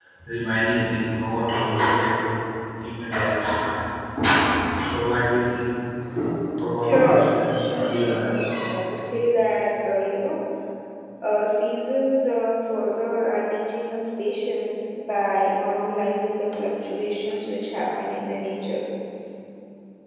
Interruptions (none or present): present